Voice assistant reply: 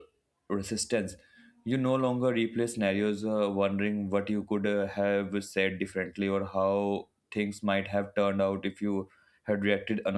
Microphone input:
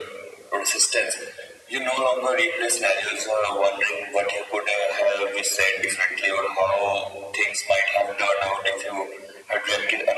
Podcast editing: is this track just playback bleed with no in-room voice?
Yes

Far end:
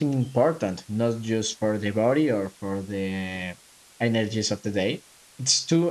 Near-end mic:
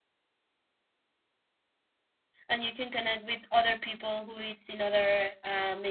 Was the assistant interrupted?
Yes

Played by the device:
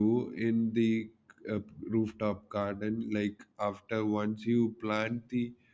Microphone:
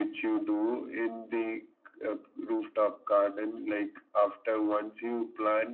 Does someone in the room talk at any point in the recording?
No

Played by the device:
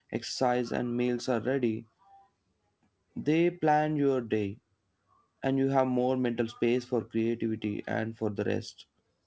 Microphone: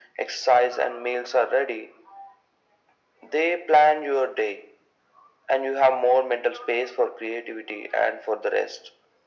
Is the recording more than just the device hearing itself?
No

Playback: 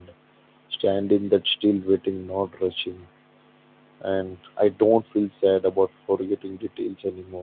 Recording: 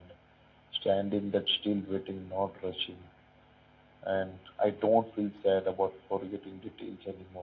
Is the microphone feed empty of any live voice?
Yes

